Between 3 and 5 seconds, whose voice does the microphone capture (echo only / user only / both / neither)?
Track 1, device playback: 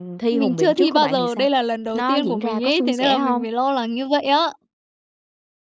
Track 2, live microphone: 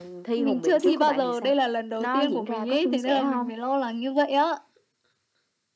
echo only